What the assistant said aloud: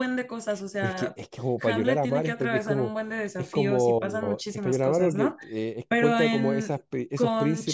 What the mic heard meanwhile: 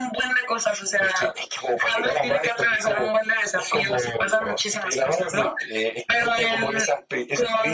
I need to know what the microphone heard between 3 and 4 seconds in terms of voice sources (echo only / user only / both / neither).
echo only